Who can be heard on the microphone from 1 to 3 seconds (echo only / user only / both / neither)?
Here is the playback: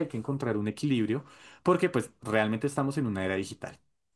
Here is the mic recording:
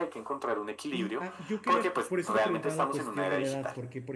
both